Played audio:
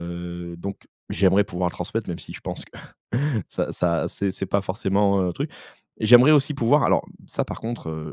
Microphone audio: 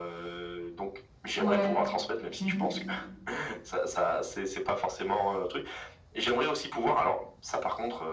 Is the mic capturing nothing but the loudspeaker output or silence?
No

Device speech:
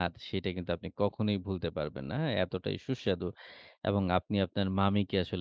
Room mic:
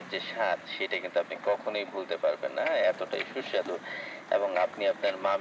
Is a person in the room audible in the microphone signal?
No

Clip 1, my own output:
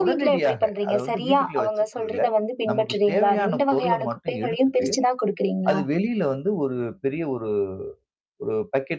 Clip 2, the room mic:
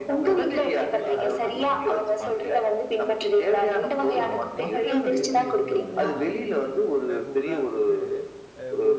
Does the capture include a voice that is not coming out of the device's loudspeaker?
Yes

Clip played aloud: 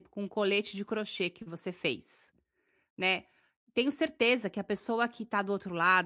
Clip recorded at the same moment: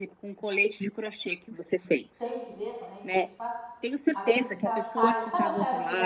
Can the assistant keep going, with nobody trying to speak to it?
No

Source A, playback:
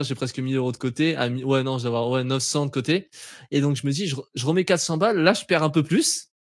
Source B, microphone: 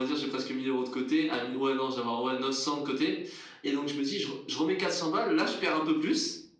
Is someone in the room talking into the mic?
No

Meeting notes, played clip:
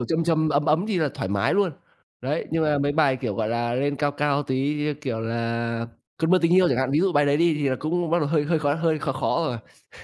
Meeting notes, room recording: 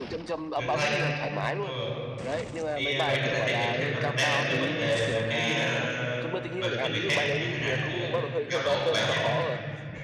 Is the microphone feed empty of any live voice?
No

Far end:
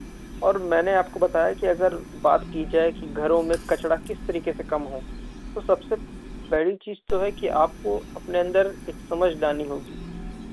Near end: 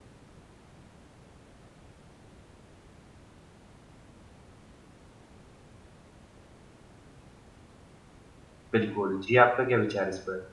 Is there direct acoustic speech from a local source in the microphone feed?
Yes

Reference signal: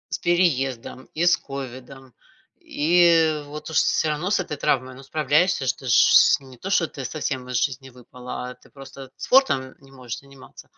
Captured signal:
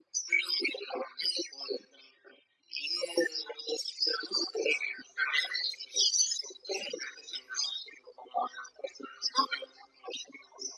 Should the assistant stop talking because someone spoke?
No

